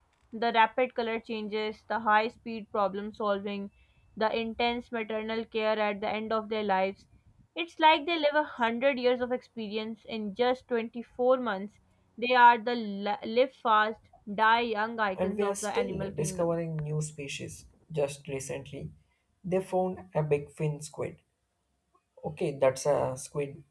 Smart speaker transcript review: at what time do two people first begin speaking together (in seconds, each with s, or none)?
15.2 s